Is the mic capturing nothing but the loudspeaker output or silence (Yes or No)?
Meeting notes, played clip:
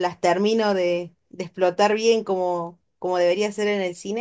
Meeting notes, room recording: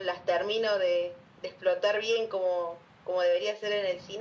Yes